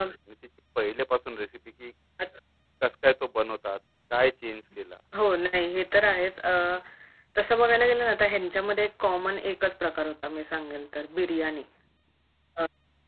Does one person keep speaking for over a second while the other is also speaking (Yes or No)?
No